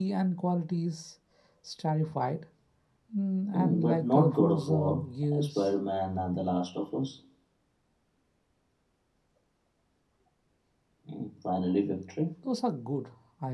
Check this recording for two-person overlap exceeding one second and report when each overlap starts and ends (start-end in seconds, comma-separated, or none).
3.5-5.0